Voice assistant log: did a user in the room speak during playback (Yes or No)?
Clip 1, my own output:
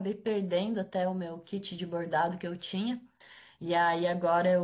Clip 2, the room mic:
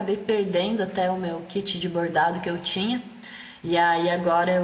No